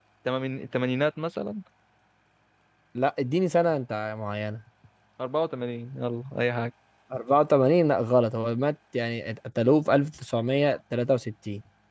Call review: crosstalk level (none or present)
none